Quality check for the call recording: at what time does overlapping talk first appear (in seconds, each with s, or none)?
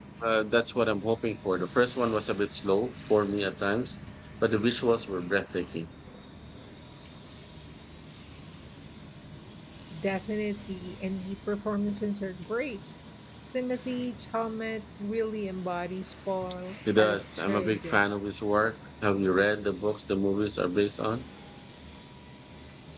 16.8 s